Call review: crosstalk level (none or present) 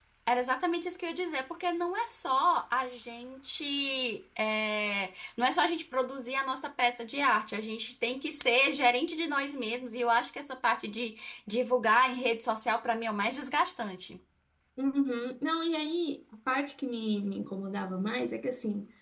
none